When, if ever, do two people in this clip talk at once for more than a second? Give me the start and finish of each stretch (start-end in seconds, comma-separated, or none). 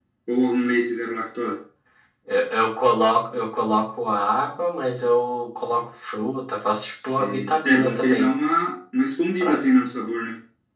6.9-8.3